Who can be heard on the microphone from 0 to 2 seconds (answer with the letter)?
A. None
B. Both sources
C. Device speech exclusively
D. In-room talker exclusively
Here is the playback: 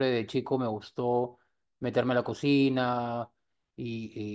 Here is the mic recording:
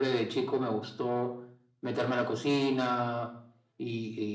C